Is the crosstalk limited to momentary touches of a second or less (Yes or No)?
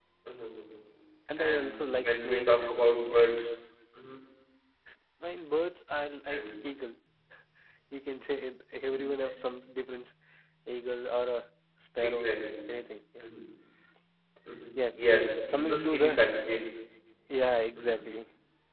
No